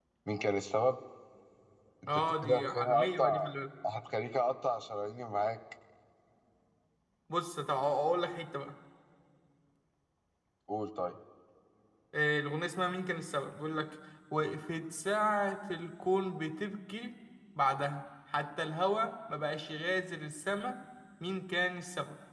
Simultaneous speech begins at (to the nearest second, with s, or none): 2 s